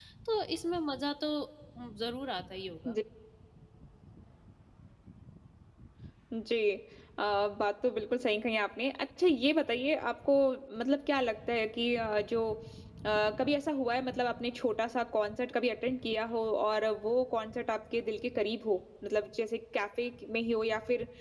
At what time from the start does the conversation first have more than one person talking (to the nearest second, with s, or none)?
none